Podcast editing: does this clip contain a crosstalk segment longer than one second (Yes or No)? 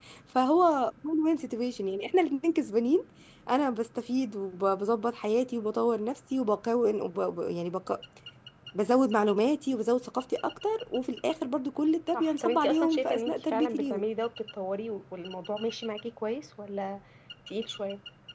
Yes